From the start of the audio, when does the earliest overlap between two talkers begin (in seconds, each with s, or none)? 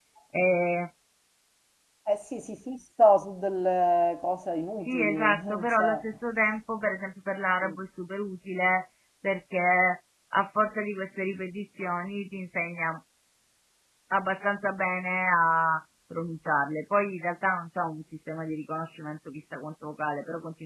4.8 s